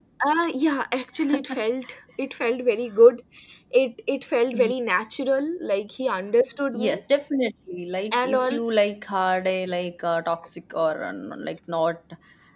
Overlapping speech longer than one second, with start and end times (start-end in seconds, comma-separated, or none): none